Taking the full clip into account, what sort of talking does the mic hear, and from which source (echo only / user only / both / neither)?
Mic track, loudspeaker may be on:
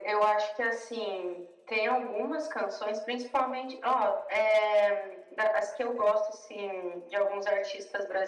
echo only